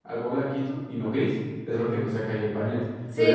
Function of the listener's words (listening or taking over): taking over